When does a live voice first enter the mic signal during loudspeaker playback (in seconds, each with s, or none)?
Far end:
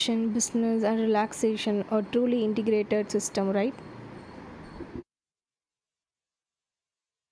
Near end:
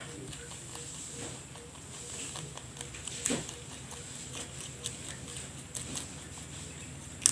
none